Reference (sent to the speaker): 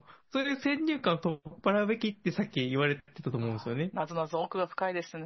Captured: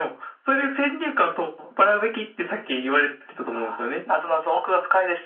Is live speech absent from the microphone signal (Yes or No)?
Yes